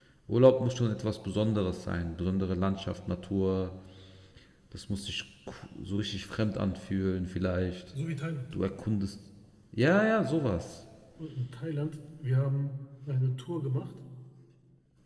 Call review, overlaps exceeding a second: none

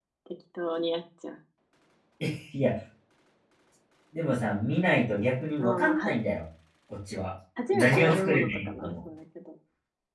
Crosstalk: present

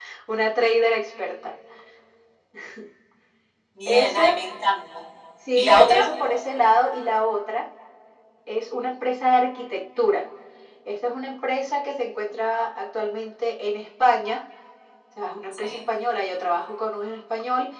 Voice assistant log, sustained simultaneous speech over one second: none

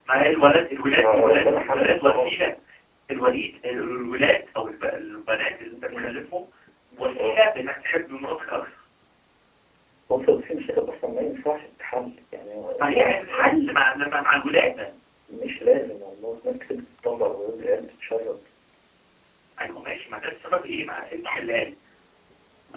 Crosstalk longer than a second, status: present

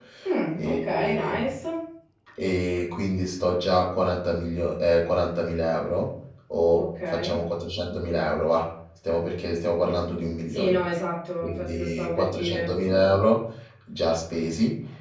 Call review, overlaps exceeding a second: present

